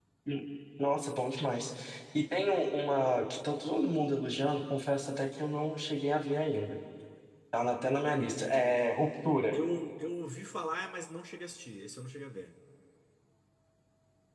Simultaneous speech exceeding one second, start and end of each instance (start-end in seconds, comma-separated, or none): none